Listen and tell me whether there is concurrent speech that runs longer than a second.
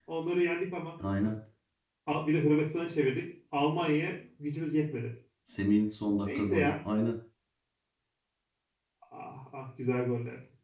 No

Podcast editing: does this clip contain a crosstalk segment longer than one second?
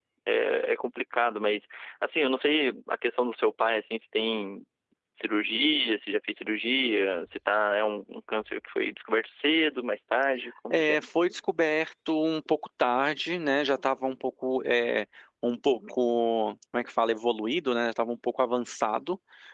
No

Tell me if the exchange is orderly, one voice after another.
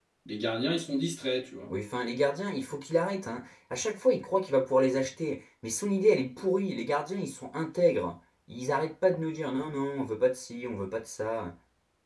Yes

